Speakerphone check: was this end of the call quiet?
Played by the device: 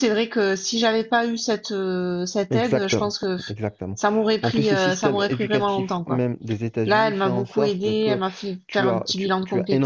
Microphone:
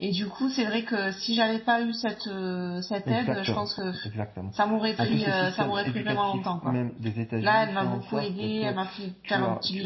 No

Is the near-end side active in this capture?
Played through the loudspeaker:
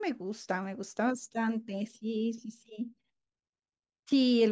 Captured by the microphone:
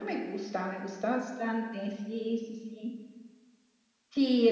No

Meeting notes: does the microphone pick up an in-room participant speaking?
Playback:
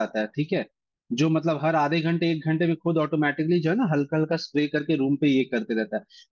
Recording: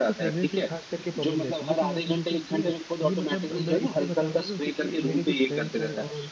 Yes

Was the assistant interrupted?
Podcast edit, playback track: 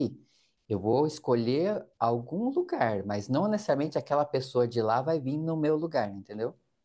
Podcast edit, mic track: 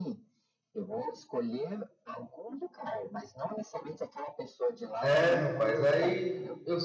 Yes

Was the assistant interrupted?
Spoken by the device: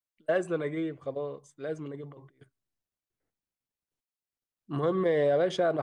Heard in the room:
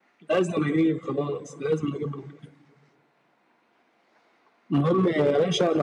No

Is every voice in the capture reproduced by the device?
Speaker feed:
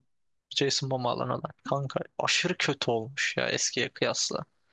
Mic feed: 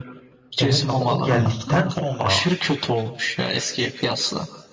No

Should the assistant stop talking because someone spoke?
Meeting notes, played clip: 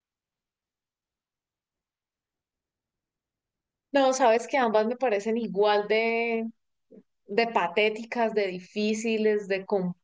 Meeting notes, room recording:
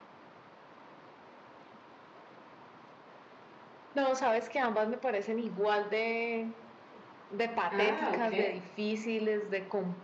Yes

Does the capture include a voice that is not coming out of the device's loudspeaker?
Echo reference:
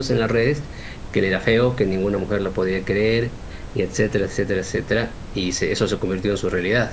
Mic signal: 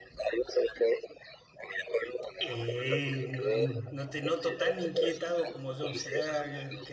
Yes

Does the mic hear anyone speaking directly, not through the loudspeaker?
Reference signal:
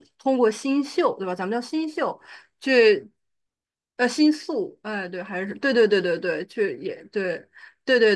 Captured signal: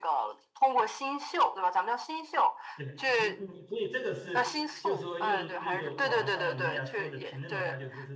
Yes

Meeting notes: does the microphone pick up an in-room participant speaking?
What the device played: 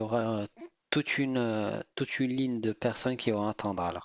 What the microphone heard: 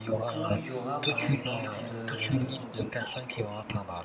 Yes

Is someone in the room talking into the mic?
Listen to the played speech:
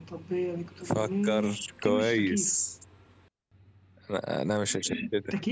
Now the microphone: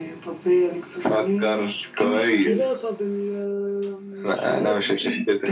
Yes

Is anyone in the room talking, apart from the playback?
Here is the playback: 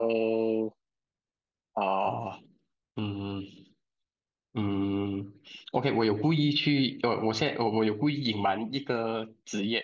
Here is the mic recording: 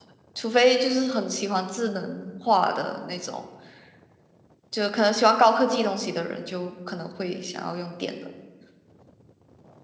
Yes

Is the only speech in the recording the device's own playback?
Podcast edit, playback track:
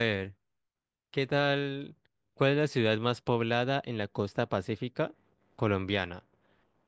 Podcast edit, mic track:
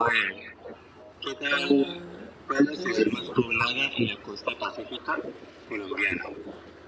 No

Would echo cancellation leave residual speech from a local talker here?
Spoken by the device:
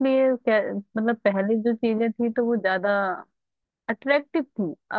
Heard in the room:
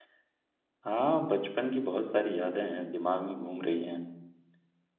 Yes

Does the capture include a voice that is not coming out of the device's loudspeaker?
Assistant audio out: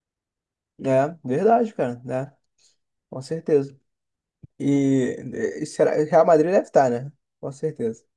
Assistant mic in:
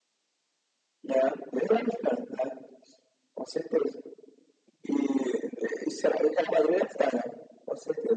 No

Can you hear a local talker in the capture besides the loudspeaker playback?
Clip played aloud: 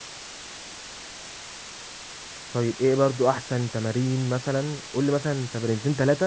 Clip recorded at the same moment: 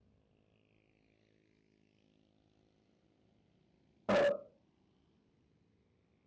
Yes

